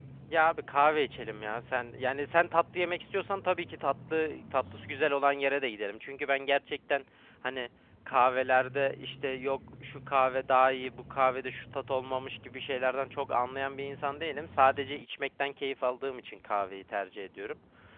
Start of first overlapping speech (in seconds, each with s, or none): none